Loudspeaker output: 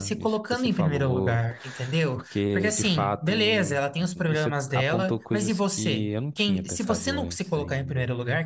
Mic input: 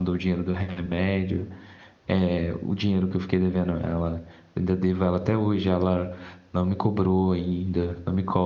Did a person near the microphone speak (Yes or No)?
Yes